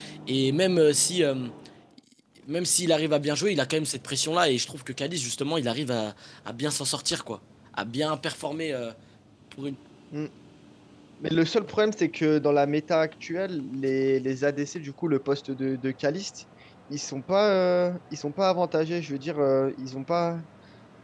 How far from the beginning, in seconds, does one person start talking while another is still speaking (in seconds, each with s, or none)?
none